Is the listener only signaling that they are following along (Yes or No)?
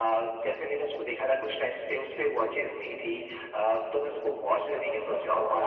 Yes